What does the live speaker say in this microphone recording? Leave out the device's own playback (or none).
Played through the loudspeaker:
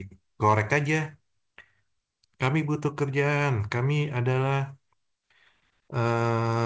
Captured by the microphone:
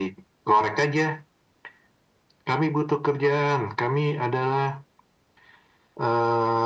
none